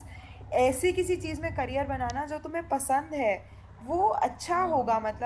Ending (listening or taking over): listening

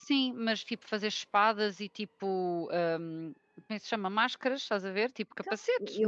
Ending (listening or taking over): taking over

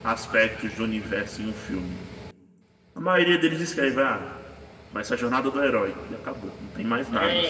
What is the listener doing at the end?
taking over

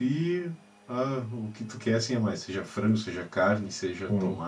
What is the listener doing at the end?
listening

